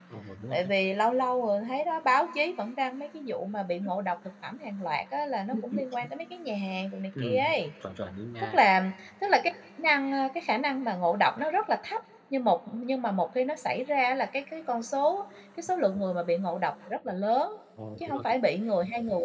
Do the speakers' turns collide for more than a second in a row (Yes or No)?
No